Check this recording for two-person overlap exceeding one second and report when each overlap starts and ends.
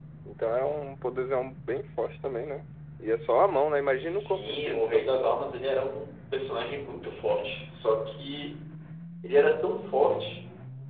3.9-5.1

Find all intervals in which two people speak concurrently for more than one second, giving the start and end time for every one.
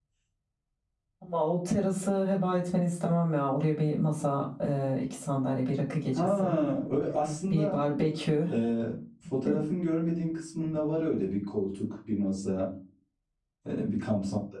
none

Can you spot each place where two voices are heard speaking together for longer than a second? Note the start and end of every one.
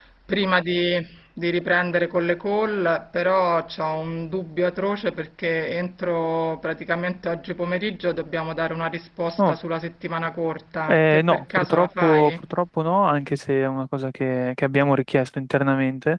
10.9-12.3

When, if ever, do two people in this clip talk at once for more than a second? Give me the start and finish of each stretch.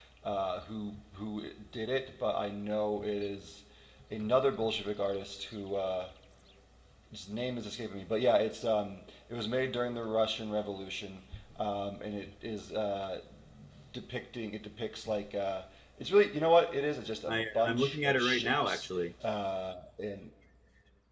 17.3-18.9

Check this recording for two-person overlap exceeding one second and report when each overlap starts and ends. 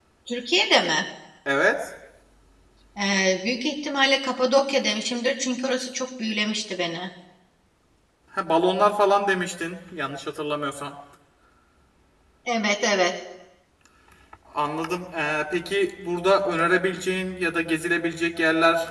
none

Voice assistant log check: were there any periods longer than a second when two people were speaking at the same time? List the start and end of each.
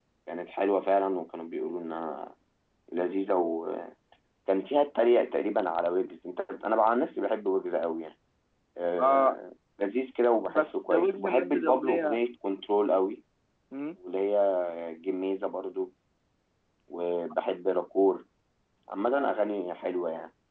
10.4-12.2

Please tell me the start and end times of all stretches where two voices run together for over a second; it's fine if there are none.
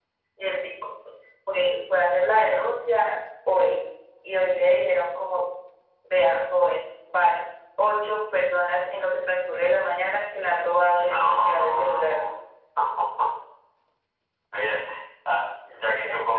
10.9-12.2

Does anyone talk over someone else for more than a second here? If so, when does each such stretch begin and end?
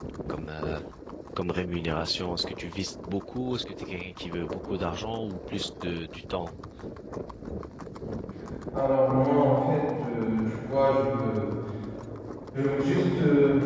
none

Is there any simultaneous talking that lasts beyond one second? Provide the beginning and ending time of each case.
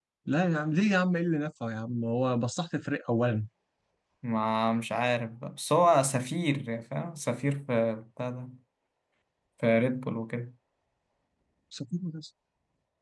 none

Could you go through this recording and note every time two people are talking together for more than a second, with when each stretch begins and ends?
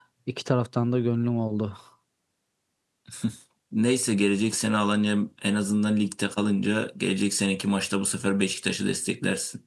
none

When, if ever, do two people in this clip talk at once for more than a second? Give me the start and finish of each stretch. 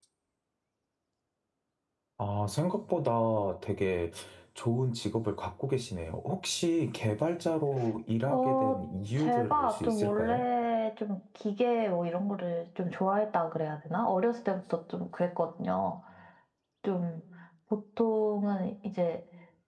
9.2-10.4

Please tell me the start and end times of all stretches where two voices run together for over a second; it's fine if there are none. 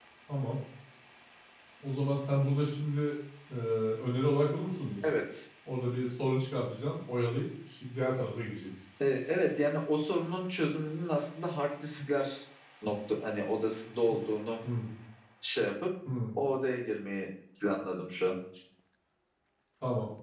none

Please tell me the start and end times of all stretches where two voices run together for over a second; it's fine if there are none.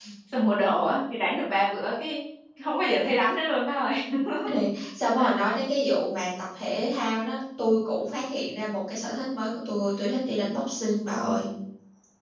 none

